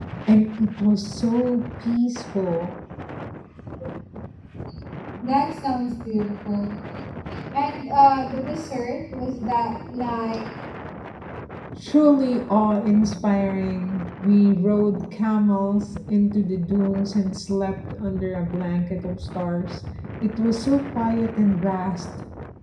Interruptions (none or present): none